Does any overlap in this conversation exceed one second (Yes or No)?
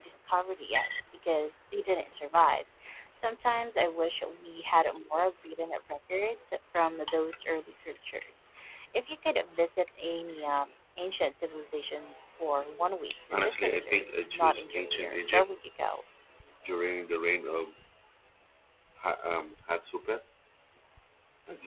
Yes